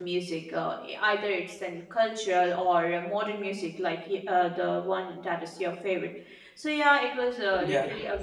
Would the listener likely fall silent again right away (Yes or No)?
Yes